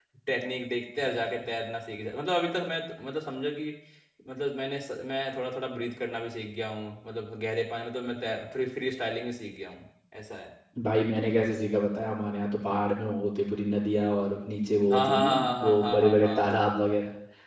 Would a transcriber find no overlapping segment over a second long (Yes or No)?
No